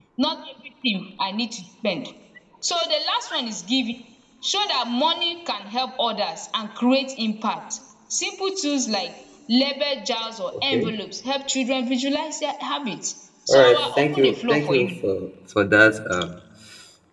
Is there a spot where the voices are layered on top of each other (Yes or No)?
Yes